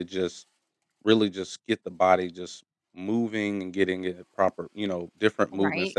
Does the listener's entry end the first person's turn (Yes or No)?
Yes